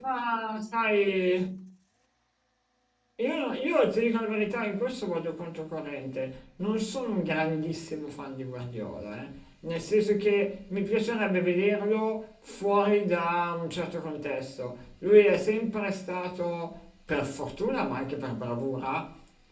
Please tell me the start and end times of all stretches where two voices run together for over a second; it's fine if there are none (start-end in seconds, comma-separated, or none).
none